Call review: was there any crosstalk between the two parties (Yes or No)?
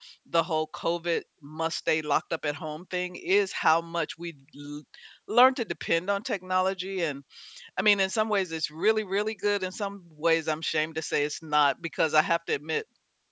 No